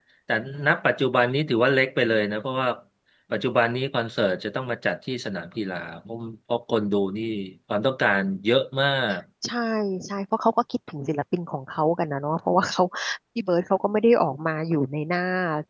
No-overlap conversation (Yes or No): Yes